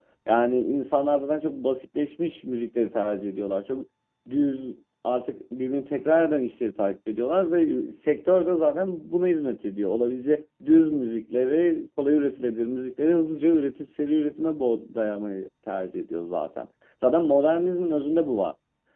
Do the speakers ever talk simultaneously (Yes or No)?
No